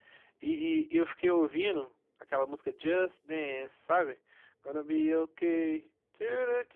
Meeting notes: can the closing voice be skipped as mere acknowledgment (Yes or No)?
Yes